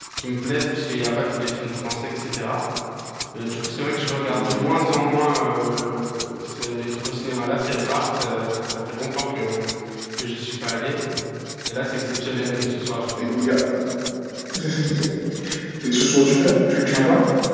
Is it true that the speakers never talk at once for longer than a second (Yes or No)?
Yes